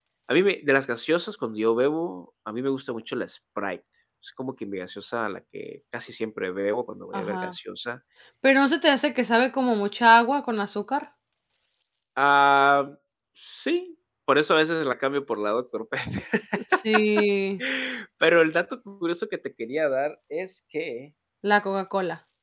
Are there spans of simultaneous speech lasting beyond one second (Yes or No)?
No